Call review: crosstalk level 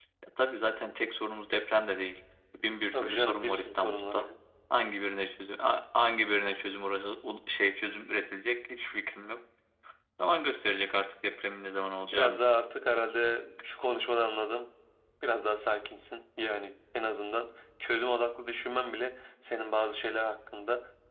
present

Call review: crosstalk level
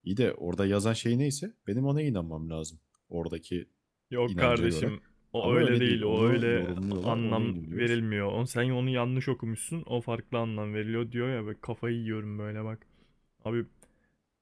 present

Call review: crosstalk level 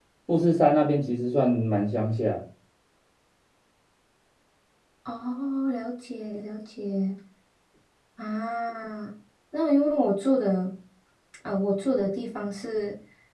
none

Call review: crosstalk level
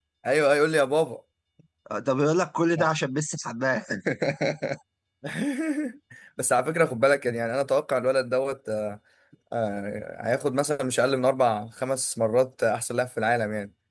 none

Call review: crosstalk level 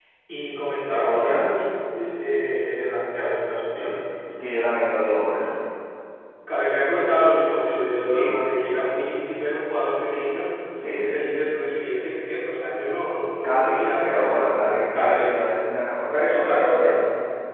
present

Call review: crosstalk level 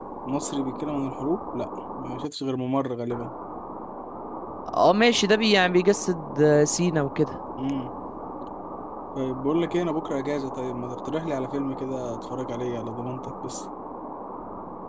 none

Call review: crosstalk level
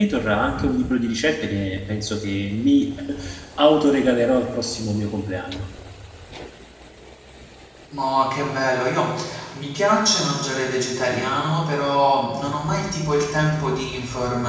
none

